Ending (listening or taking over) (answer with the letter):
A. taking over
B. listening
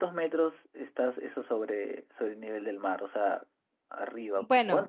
A